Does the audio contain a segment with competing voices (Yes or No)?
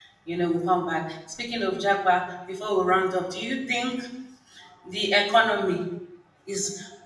No